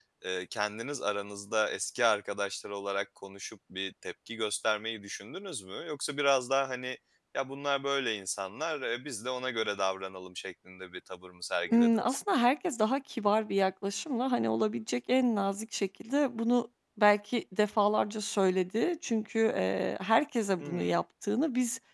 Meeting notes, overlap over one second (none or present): none